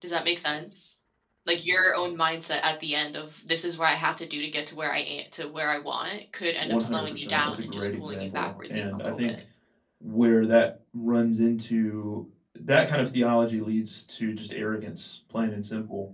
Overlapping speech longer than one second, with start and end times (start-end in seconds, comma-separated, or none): 6.6-9.4